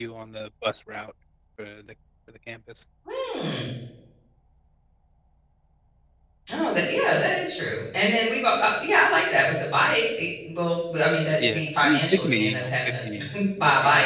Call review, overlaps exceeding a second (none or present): present